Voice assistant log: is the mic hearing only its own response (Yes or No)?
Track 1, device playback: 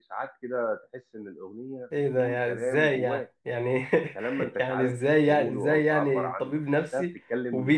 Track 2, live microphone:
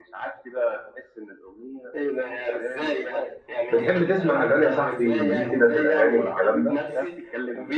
No